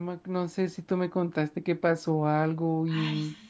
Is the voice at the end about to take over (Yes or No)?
Yes